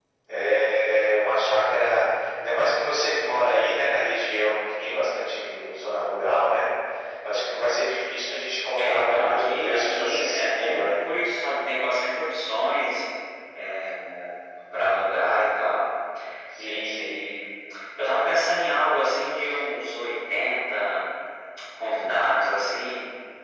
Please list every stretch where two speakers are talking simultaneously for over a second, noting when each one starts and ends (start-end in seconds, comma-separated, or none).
8.8-11.0